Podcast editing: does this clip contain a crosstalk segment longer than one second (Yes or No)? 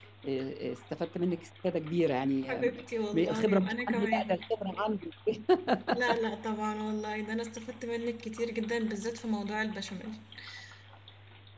Yes